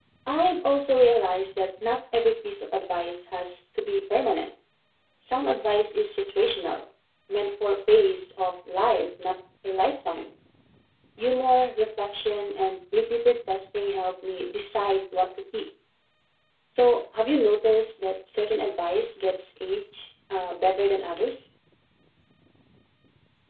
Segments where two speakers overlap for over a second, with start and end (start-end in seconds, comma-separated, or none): none